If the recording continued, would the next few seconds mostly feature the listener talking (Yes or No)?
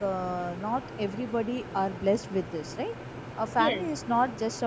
No